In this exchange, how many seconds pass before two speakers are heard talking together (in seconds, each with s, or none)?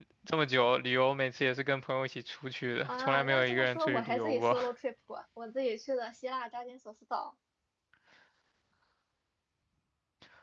2.8 s